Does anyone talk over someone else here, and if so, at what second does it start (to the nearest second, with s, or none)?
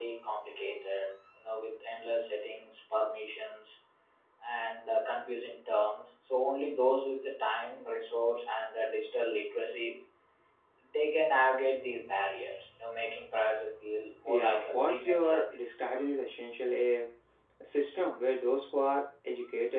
14 s